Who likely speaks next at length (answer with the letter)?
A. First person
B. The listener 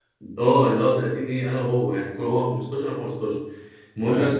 A